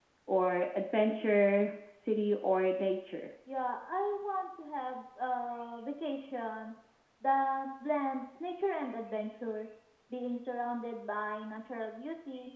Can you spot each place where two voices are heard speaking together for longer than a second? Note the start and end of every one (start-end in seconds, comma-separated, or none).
none